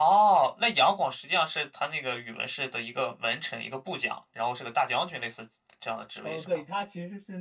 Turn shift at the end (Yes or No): Yes